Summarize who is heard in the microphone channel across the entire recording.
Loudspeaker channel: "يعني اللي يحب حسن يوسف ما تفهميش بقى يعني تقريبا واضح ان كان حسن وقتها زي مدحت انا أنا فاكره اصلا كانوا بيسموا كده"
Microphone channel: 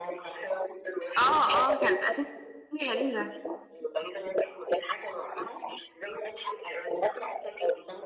both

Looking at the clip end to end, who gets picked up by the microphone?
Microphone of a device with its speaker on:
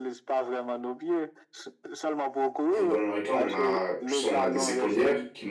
both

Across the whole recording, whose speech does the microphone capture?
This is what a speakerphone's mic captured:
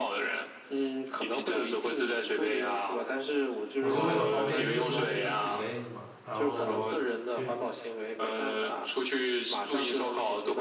both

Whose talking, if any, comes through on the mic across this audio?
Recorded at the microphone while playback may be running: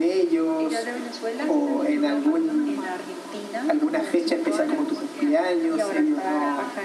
both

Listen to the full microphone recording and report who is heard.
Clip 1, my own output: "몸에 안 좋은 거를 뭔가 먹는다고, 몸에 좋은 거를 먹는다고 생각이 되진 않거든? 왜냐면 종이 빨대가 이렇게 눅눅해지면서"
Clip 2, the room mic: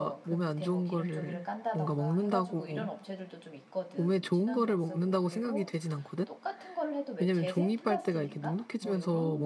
both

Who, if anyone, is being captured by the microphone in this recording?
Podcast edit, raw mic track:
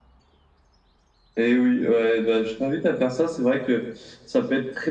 echo only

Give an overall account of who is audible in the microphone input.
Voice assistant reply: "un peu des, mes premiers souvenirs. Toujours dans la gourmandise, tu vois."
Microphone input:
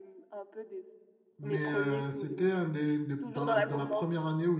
both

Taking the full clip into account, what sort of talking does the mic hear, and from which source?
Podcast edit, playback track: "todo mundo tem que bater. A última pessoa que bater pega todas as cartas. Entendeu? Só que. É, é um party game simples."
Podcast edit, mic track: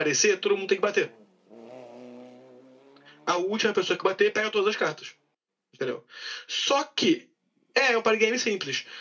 echo only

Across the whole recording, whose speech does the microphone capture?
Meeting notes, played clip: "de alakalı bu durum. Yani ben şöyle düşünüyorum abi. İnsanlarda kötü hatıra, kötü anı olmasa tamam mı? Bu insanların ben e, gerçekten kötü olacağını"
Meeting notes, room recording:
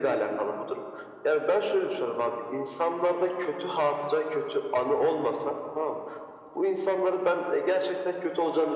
echo only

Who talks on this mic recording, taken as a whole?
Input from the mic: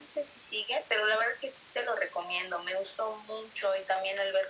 echo only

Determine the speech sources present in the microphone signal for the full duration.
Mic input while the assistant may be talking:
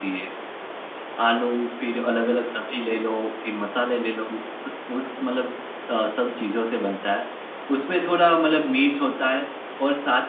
echo only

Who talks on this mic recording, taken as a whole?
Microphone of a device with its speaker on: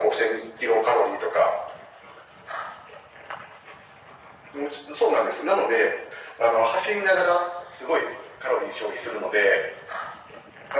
echo only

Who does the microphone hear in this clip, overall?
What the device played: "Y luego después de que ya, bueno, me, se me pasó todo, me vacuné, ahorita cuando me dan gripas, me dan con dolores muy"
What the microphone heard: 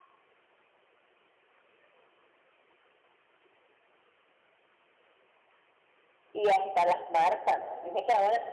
user only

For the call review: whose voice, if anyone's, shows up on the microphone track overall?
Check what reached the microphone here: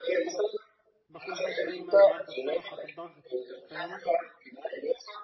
both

